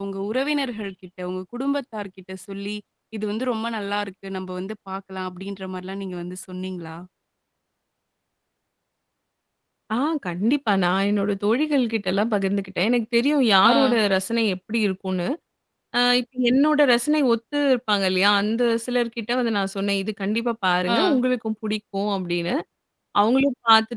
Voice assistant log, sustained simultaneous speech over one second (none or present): none